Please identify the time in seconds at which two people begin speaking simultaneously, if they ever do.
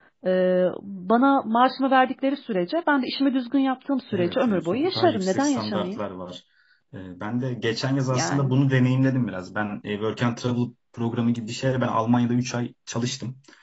4.1 s

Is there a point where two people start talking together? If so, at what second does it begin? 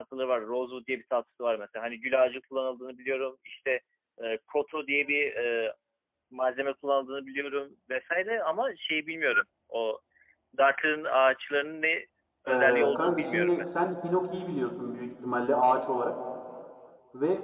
12.5 s

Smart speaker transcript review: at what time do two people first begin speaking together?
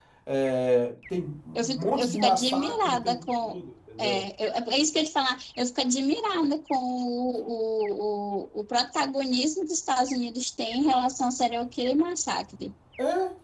1.6 s

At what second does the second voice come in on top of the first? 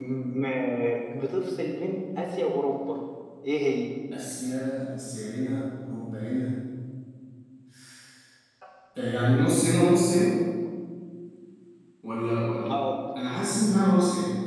none

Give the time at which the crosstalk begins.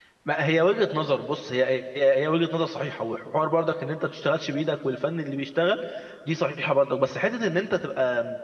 none

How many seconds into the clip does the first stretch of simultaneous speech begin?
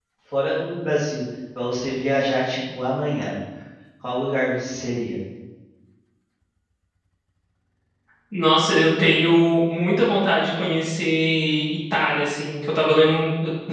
none

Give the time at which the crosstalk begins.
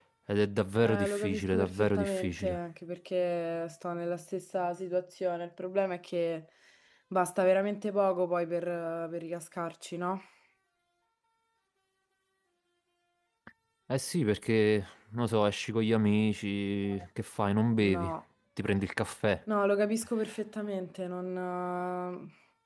0.8 s

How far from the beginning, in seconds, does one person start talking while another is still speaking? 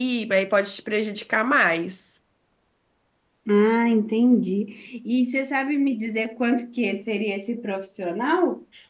none

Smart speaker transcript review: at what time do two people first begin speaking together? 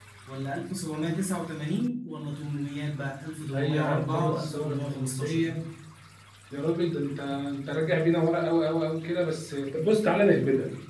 3.5 s

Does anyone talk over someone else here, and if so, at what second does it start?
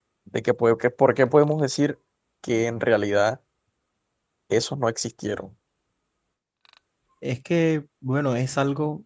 none

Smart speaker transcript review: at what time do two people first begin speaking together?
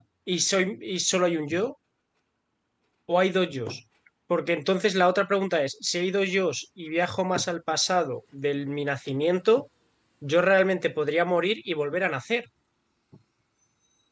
none

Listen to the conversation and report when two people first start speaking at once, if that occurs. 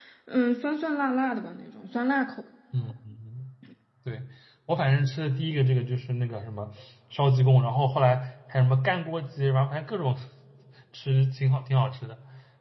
none

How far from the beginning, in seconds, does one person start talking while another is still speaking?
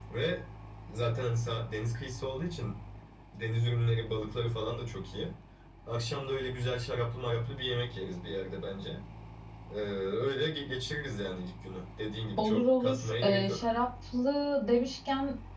12.4 s

